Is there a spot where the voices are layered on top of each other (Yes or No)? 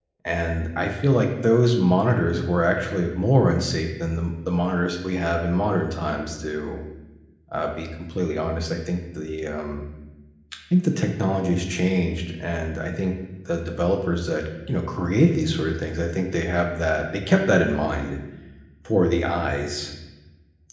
No